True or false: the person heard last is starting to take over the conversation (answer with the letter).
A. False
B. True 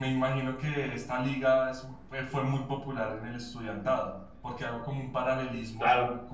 A